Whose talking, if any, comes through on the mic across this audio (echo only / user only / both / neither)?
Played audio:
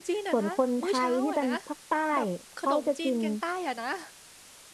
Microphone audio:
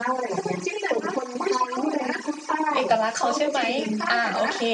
both